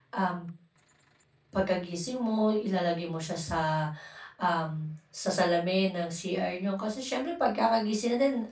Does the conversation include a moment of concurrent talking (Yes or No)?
No